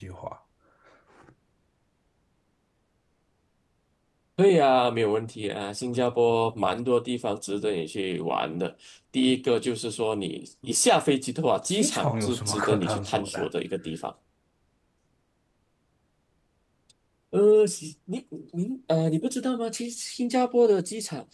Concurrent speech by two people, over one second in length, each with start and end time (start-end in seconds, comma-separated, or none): 11.7-13.5